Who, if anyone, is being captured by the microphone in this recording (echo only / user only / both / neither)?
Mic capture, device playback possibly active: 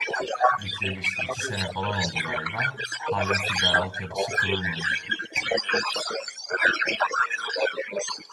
both